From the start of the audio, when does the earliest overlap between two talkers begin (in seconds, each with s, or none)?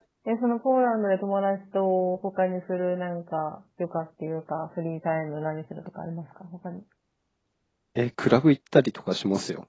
none